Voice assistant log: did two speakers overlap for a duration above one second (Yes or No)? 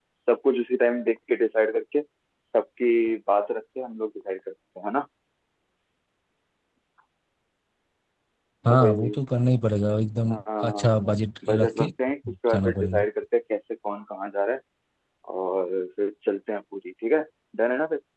No